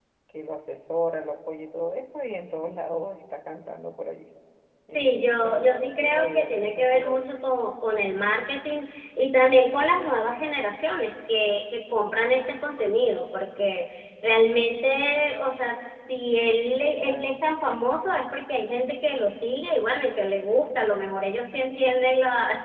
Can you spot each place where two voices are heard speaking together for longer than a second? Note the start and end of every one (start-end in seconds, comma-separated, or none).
4.9-7.2